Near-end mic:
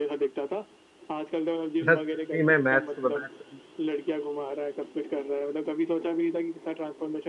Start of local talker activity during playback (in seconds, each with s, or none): 1.8 s